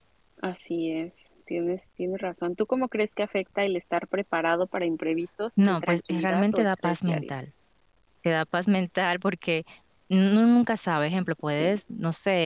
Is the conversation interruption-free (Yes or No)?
No